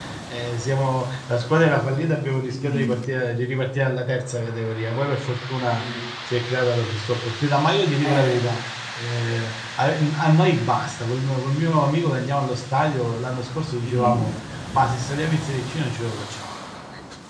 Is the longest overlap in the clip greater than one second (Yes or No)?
No